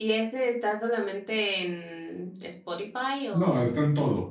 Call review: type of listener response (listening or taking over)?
taking over